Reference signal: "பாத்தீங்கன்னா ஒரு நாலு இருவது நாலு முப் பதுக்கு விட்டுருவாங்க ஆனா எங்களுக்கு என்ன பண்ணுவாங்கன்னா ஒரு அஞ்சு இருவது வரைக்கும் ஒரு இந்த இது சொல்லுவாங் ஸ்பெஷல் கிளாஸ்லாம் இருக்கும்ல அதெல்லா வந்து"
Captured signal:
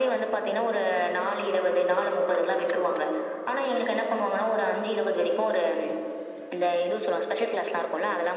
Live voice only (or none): none